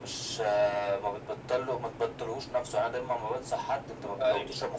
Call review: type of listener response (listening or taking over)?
listening